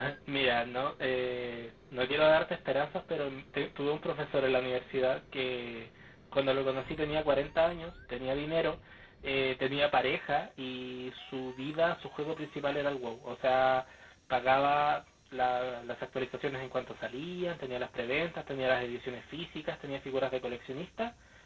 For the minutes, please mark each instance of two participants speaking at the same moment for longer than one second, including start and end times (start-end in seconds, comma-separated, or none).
none